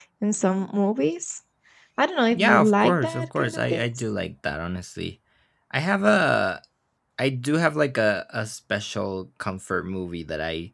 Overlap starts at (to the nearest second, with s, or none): 2 s